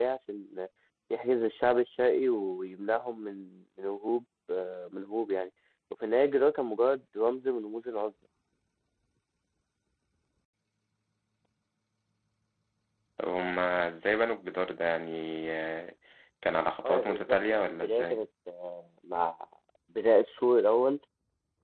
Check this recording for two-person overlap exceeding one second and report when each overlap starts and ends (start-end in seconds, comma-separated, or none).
16.9-18.2